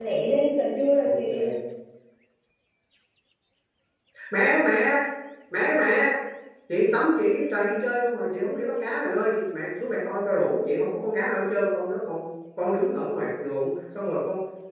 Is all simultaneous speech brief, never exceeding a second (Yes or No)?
Yes